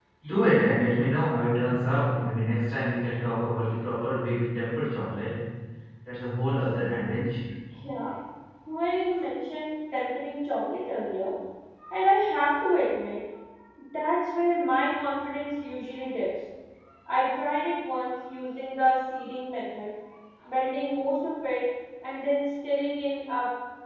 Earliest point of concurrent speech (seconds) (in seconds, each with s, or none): none